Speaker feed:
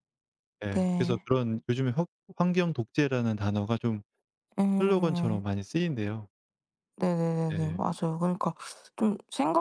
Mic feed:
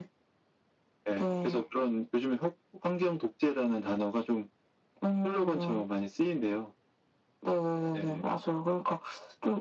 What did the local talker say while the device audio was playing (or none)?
none